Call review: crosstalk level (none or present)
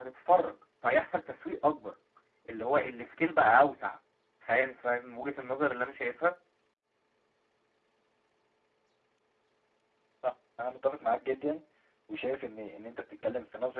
none